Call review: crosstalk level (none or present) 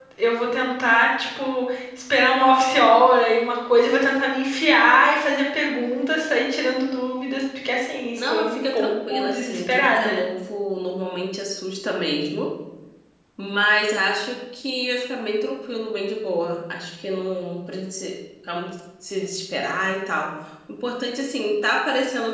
present